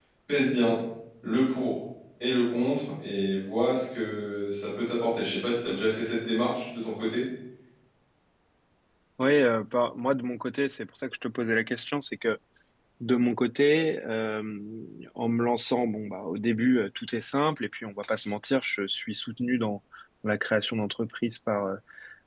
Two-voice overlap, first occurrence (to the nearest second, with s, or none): none